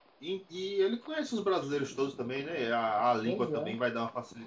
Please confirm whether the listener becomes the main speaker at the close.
No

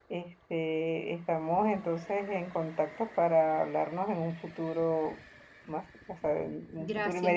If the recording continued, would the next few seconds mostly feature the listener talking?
Yes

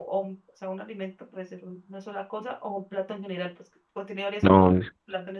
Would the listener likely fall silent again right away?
No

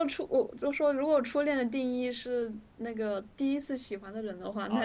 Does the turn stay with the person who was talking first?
No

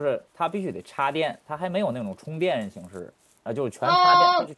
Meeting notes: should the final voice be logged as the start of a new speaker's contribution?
Yes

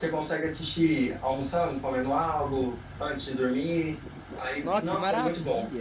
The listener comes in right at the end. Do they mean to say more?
Yes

